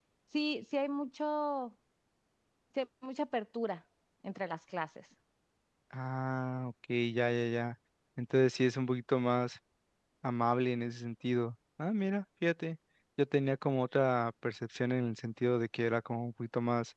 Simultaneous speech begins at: none

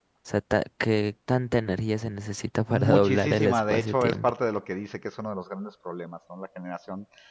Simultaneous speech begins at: 3 s

